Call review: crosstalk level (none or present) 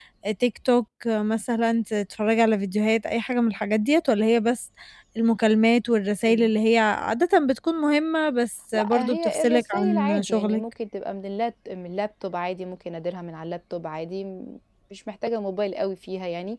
present